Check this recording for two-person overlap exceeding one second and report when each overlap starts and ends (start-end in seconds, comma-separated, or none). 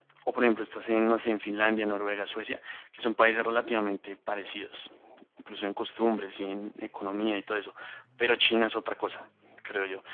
none